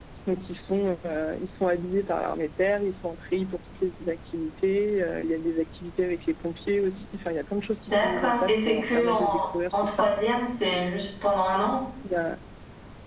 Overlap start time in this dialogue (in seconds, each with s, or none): 7.9 s